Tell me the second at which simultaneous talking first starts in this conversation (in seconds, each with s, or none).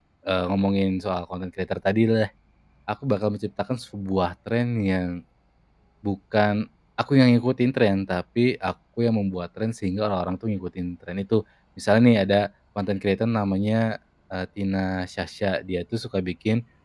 none